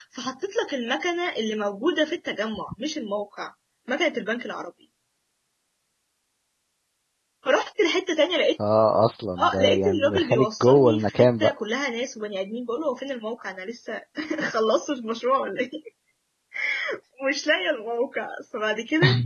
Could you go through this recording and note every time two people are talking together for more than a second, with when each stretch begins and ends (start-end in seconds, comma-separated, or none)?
9.4-11.5